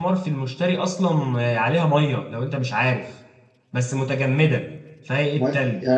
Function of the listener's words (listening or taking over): taking over